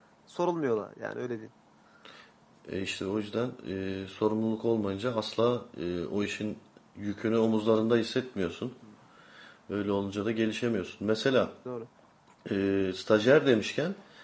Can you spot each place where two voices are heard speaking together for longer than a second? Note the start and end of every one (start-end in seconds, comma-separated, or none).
none